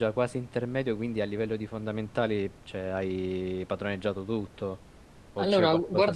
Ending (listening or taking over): taking over